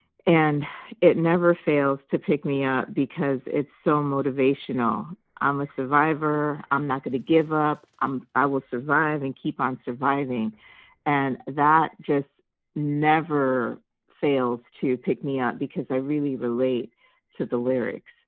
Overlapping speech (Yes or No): No